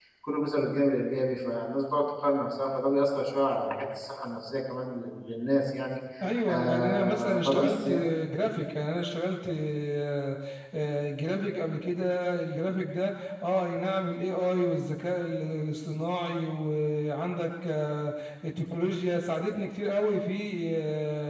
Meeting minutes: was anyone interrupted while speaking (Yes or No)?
Yes